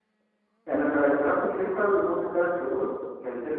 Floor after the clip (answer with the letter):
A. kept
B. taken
A